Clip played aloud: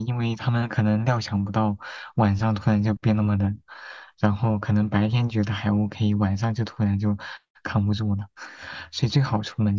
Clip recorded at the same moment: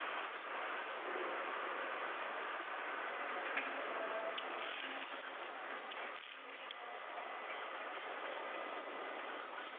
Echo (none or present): none